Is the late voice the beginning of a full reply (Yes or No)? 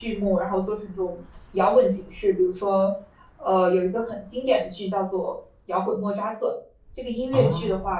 No